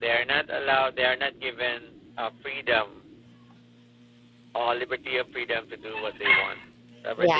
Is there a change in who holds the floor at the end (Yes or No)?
Yes